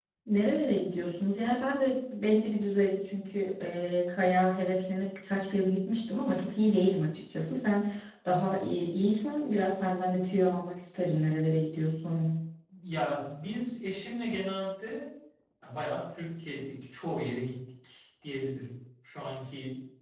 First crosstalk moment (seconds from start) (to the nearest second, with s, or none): none